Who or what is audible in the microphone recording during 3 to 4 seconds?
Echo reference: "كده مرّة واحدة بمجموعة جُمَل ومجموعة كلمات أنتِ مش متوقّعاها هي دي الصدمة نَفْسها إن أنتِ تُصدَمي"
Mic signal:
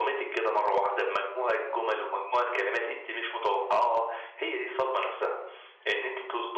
echo only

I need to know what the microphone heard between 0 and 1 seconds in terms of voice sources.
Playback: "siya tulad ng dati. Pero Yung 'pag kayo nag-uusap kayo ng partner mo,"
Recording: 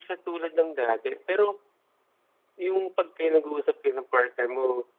echo only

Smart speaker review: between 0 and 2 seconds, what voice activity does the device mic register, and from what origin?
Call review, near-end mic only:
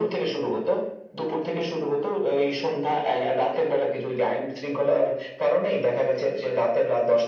echo only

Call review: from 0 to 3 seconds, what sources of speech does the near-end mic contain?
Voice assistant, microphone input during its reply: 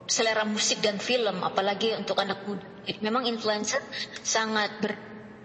echo only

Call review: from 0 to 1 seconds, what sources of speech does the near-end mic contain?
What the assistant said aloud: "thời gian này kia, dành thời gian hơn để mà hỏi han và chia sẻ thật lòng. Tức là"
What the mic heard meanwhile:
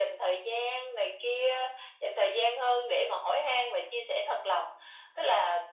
echo only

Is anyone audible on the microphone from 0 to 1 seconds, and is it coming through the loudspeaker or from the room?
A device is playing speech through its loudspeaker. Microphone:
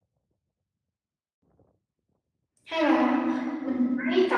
neither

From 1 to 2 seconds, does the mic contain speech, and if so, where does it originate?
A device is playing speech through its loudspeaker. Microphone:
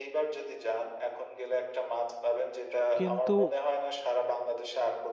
echo only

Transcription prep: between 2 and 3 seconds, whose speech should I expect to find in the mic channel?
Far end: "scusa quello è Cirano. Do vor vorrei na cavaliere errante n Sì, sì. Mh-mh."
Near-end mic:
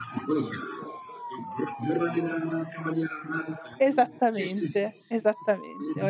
echo only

